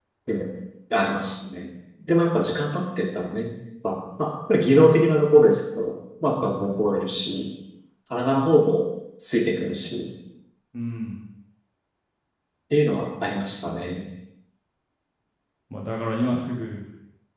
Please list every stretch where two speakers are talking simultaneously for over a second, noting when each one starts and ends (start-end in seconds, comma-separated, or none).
none